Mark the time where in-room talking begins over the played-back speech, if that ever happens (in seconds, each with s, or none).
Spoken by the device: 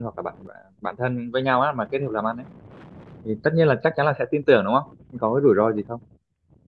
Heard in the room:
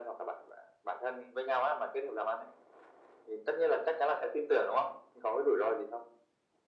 none